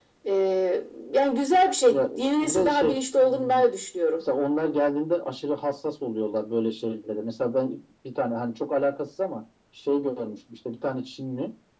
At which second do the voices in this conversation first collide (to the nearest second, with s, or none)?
2 s